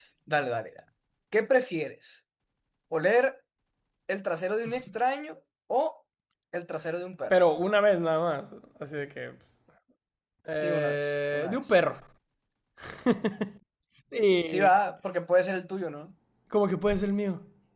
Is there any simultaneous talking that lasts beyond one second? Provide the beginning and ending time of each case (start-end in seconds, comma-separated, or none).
10.6-11.8